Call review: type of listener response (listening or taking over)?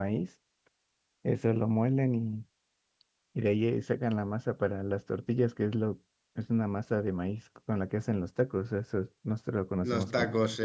taking over